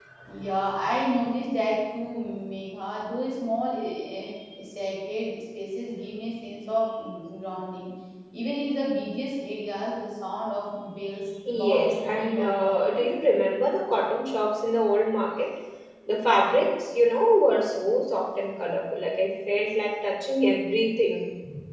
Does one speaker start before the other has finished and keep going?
Yes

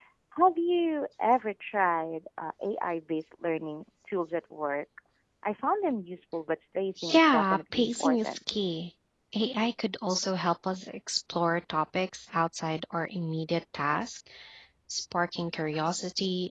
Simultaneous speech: Yes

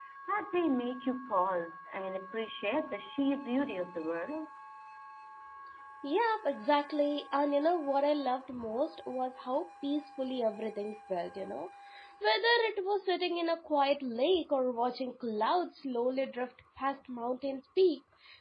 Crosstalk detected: No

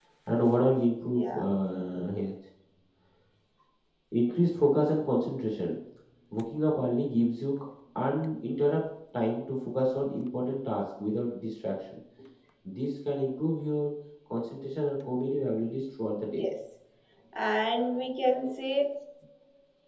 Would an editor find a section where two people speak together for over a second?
No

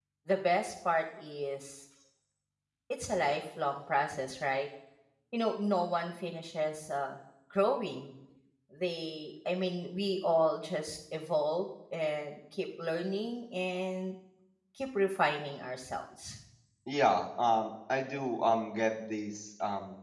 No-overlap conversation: Yes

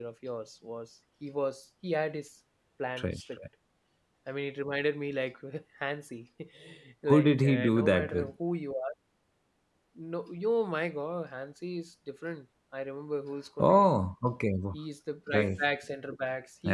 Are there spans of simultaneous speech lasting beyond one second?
Yes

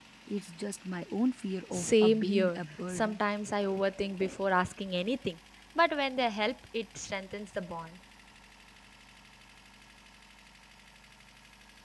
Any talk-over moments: Yes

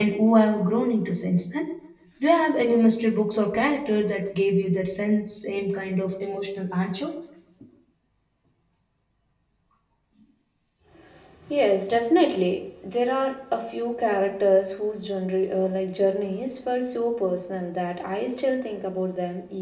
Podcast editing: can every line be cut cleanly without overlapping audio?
Yes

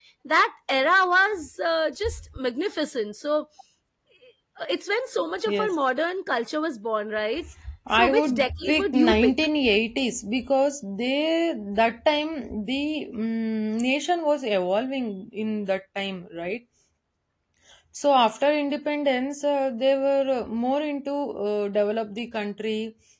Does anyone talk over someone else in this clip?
Yes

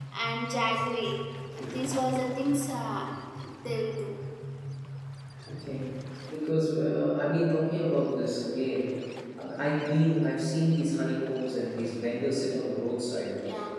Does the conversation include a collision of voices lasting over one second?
No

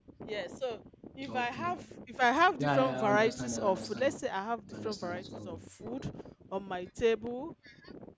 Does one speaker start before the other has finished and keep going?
Yes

